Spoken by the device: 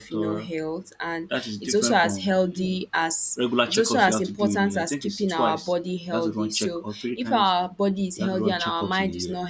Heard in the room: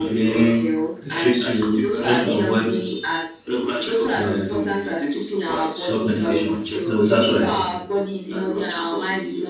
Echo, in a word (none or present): present